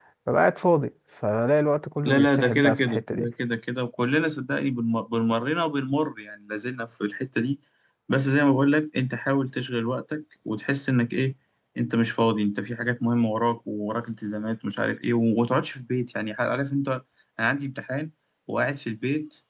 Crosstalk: present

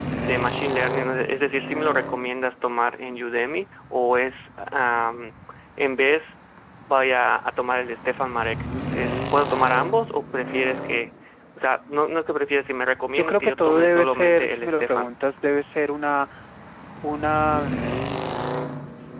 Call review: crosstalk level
present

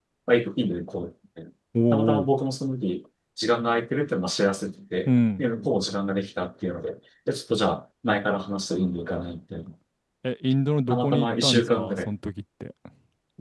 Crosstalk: present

